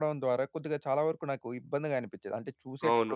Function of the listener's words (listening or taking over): taking over